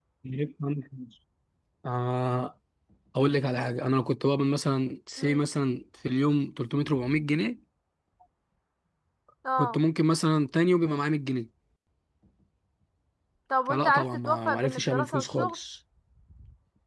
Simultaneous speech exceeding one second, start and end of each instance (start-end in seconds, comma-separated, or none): 13.7-15.6